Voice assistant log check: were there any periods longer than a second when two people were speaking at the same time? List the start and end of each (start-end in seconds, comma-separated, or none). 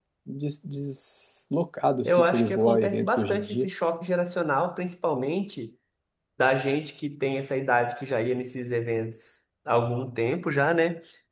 2.0-3.7